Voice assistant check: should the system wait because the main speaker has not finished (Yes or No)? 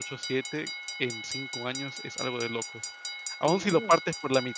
Yes